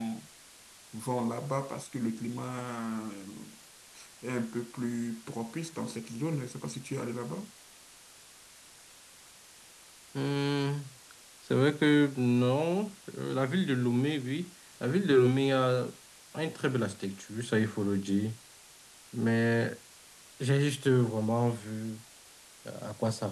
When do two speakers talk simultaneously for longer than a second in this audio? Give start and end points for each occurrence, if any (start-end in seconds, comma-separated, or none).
none